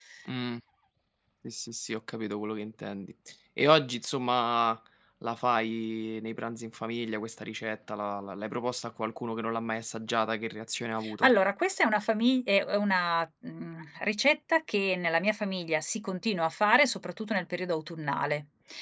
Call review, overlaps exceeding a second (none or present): none